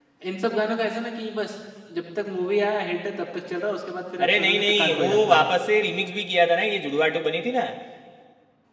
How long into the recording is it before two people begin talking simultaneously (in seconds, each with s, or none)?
4.2 s